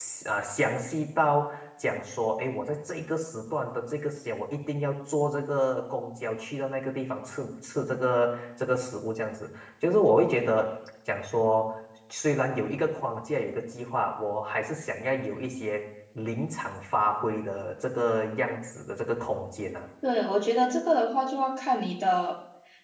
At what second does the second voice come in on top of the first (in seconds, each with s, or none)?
none